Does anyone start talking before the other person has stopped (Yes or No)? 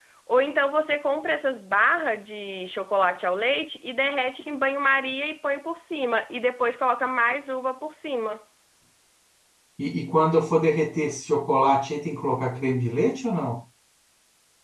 No